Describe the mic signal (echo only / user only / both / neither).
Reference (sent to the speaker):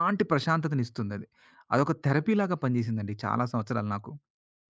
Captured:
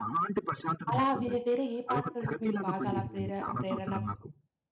both